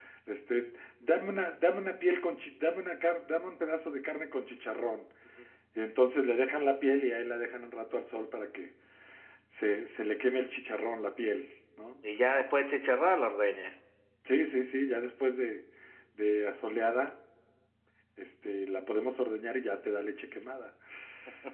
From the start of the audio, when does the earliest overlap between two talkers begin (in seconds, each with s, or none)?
none